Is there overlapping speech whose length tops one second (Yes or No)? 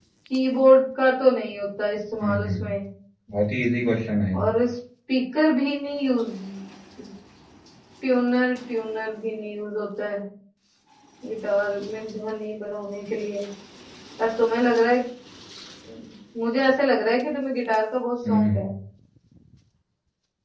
No